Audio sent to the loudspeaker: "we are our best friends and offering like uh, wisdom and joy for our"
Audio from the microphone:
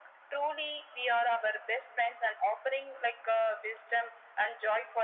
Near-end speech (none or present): none